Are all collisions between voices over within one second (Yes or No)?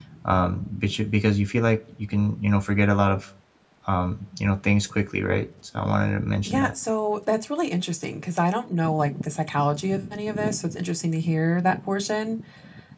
Yes